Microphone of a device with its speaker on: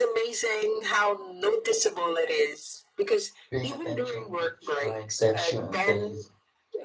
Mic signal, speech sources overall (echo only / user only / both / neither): both